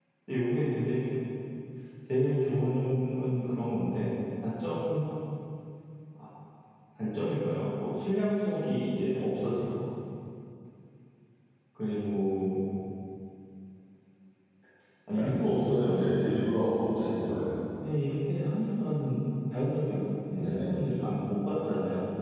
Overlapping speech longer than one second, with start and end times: 15.1-16.4

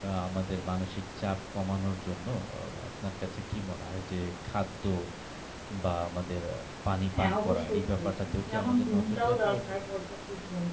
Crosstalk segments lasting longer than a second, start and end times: 7.2-9.8

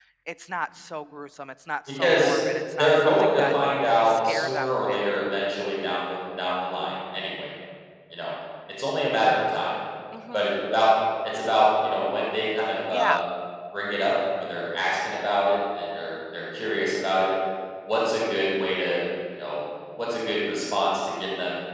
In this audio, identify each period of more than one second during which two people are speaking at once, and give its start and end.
2.8-5.0

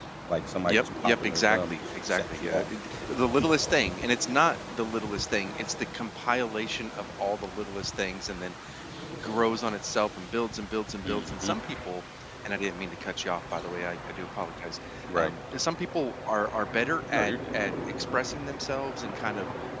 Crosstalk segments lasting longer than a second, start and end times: 0.7-2.7

